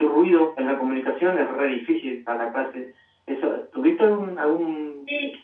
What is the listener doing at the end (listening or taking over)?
taking over